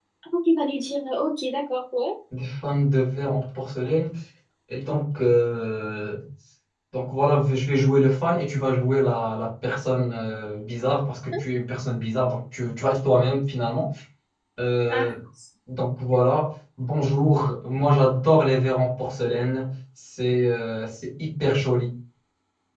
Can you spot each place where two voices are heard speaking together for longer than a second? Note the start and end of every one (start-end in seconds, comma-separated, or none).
none